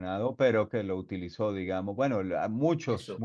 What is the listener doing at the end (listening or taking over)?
listening